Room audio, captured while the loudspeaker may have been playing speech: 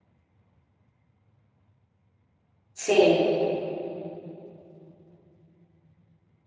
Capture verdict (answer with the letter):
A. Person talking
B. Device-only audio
A